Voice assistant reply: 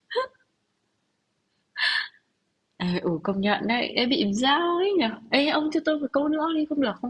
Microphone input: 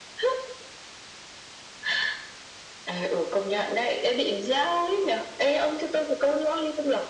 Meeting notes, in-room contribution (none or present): none